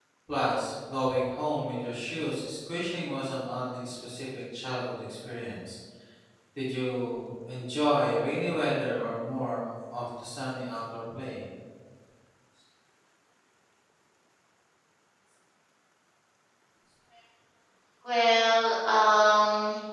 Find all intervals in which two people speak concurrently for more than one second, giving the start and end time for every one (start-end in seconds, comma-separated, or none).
none